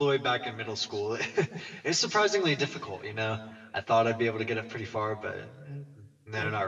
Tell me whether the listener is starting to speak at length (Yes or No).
Yes